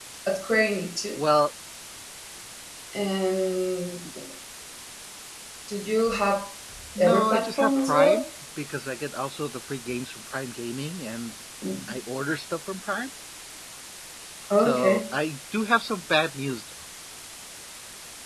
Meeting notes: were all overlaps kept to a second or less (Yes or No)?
No